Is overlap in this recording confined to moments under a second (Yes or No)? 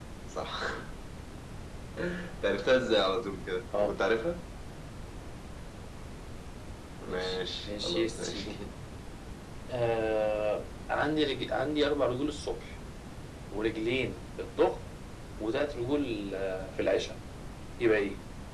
No